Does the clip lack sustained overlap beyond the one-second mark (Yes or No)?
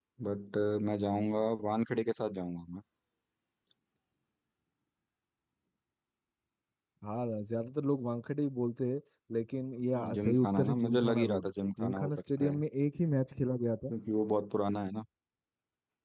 No